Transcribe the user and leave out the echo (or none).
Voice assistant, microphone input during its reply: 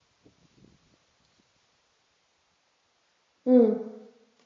ம்.